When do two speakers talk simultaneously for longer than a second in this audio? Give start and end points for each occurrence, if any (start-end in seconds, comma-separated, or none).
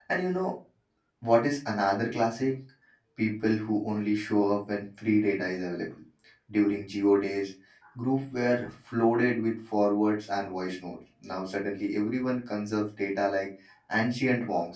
none